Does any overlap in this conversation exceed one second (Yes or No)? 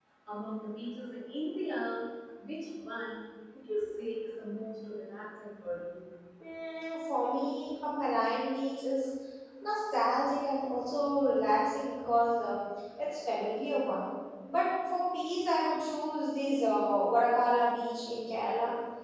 No